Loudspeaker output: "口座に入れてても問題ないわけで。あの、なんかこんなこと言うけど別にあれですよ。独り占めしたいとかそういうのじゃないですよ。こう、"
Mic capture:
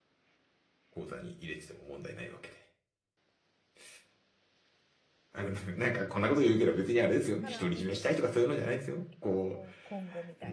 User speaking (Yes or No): Yes